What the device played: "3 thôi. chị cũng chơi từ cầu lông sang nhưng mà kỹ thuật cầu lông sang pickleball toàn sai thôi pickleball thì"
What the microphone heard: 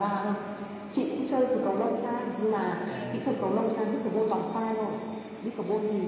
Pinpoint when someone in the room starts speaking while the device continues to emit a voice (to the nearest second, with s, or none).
3 s